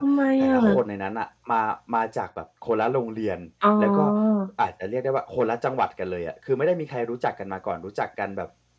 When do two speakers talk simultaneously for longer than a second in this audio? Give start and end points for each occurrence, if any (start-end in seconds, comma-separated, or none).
none